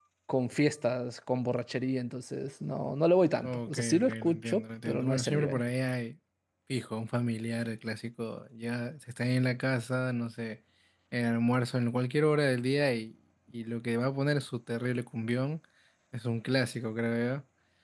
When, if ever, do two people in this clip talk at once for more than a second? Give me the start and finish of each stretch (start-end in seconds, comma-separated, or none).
3.4-5.6